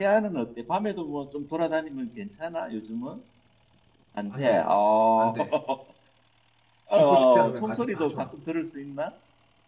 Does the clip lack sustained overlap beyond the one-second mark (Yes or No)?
No